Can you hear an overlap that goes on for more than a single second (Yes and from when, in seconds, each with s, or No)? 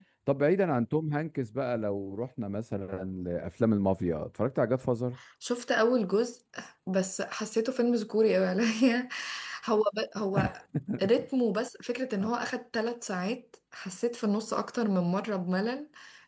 No